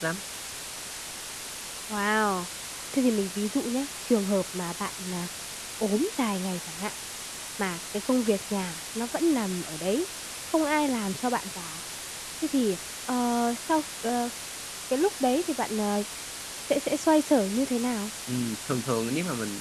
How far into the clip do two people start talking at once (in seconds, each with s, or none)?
none